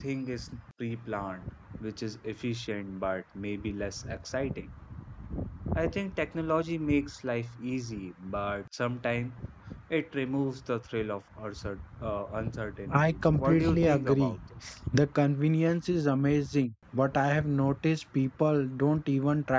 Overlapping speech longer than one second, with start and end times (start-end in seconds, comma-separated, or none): 12.9-14.4